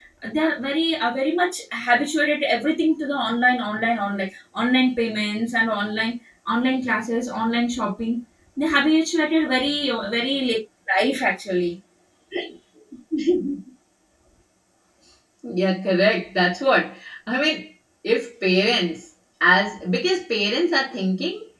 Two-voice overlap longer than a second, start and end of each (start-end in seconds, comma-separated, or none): none